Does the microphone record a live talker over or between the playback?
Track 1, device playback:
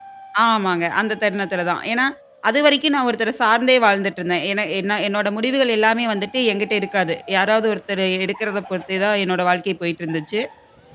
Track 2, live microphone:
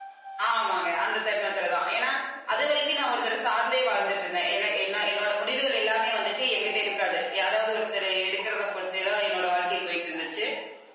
No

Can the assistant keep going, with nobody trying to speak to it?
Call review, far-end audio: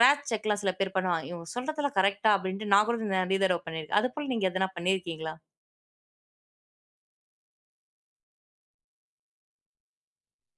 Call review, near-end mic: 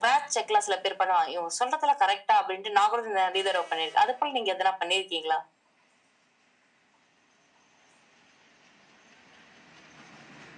Yes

